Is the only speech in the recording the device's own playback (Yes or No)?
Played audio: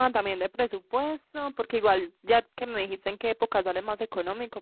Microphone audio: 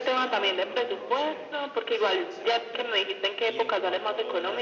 No